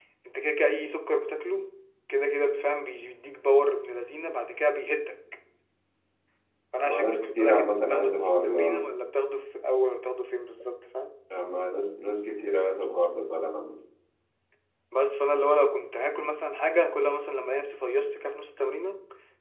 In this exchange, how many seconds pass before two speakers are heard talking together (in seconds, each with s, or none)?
6.9 s